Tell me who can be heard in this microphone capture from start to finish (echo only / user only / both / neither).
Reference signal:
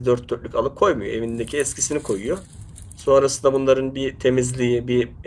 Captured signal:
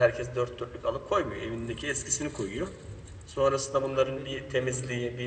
both